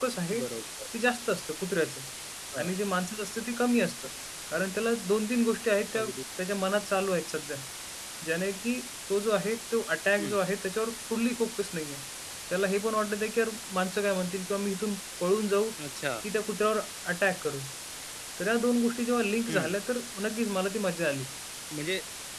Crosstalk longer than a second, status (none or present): none